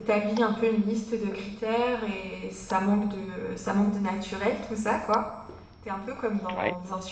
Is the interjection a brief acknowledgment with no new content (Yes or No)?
Yes